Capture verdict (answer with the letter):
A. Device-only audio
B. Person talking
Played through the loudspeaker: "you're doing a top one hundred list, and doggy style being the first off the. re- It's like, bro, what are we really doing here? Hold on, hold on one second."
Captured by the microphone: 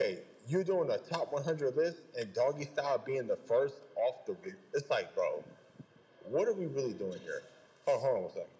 A